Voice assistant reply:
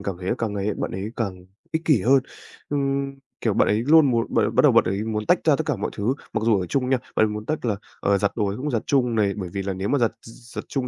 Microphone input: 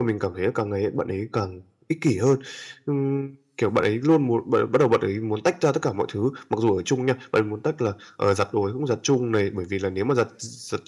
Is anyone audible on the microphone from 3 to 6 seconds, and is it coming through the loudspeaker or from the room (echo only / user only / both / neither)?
echo only